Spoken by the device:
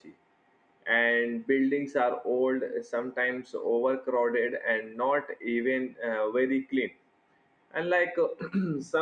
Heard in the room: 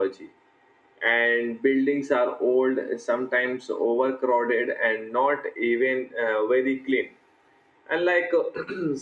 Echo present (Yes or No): Yes